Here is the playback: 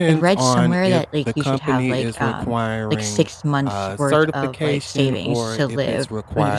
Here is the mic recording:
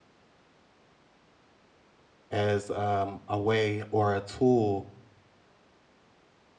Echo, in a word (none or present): none